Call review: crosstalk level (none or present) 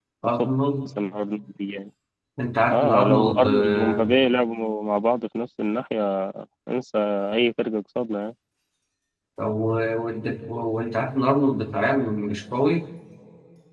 present